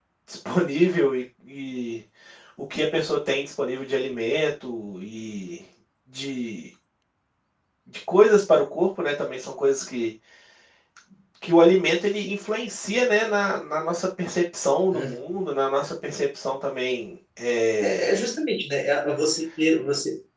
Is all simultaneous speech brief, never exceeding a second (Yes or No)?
Yes